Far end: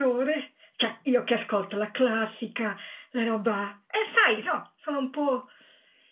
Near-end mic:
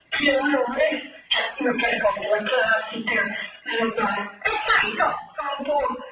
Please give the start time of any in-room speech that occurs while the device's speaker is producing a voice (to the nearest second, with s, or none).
none